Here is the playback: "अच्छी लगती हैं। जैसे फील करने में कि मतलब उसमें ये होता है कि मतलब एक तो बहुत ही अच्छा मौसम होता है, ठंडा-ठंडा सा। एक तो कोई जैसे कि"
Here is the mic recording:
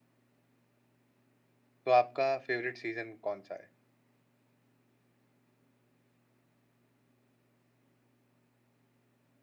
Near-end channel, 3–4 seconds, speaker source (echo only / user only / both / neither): user only